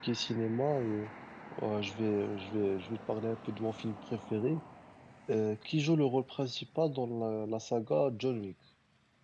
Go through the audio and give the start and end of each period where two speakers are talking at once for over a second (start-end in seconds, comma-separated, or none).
none